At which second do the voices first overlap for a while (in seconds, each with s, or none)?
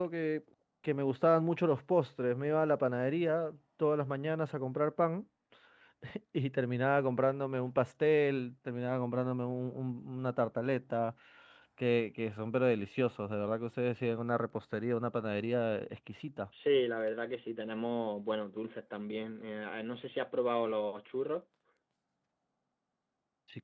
none